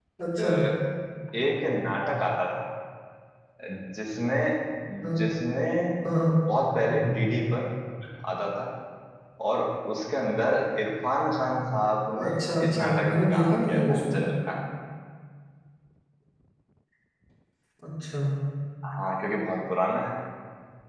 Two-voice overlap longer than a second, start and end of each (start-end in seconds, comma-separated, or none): 12.2-14.1